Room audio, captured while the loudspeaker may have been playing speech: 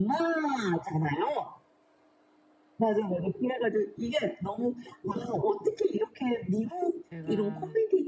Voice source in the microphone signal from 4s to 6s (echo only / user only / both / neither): echo only